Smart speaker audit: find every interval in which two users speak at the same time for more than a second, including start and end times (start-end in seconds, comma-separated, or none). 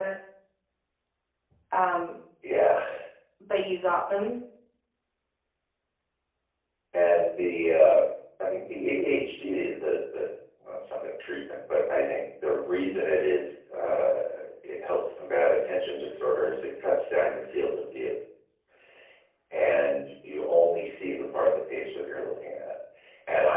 none